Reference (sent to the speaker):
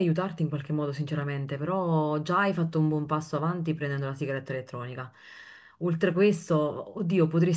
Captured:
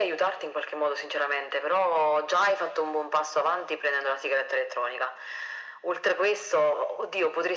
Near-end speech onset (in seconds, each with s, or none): none